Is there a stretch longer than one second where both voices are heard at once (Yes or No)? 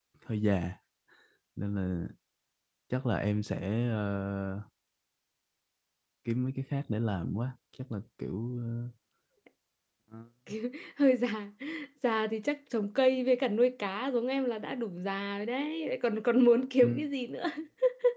No